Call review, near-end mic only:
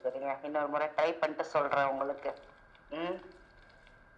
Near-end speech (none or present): none